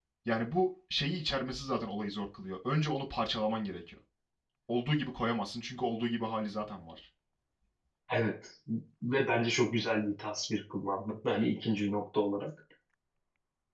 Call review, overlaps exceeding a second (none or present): none